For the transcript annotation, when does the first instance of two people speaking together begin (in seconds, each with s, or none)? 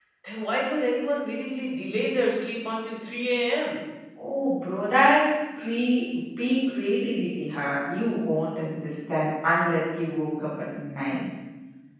none